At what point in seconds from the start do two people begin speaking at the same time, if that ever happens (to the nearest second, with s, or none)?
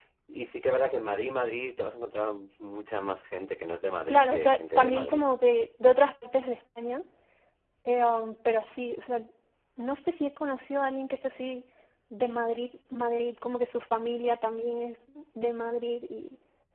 4 s